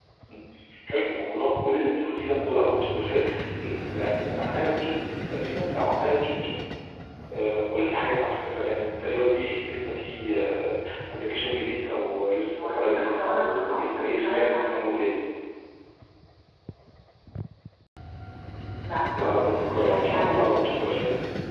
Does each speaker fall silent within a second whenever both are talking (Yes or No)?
No